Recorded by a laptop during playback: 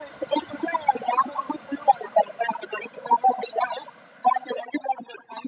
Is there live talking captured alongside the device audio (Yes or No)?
No